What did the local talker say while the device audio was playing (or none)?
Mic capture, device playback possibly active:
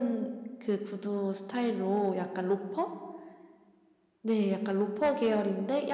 none